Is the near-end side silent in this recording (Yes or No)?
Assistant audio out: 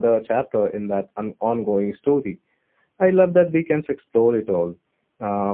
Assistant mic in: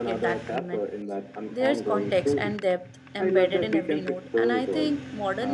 No